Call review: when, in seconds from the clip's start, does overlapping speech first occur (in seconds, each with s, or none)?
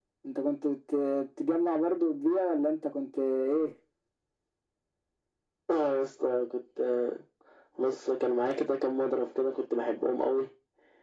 none